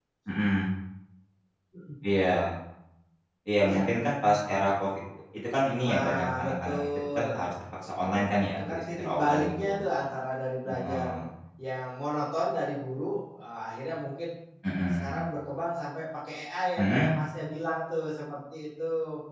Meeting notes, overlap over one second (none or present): present